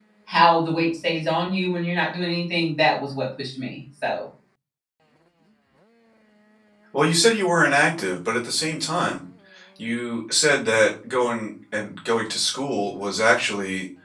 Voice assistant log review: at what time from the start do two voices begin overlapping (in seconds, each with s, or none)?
none